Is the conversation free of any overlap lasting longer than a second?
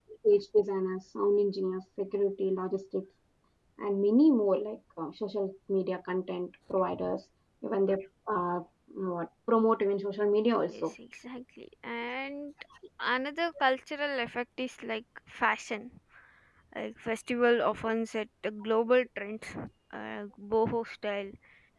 Yes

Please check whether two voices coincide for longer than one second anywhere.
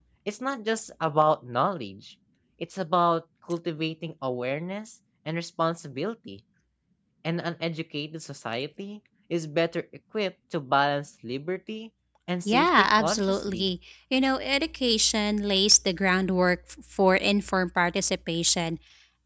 Yes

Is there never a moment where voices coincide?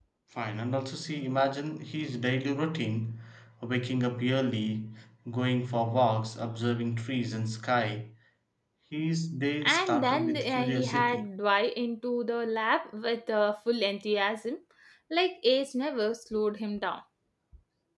No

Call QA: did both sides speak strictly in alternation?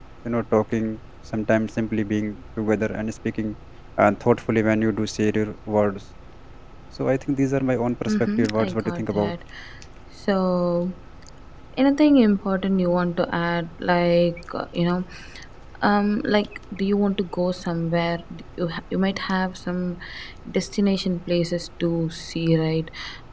No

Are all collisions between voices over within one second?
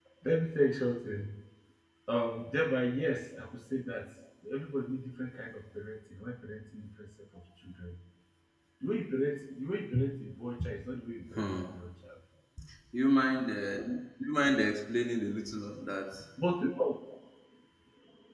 Yes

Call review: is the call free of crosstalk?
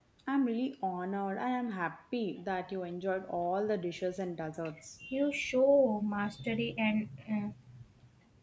Yes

